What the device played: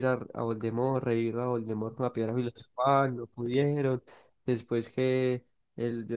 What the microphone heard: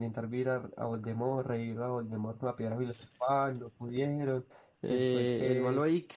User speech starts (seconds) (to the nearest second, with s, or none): 5 s